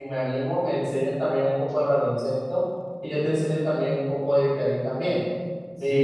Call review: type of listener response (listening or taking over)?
taking over